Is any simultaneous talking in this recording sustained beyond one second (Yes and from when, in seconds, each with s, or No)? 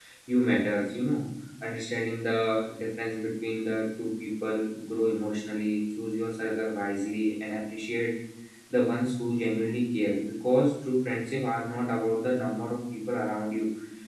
No